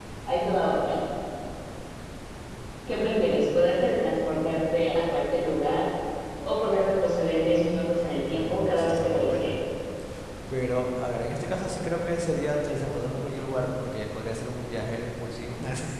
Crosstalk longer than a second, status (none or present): present